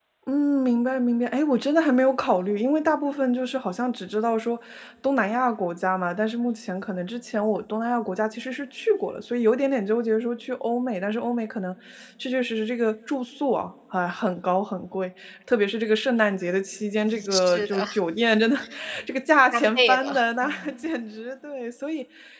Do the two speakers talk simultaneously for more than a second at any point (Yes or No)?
Yes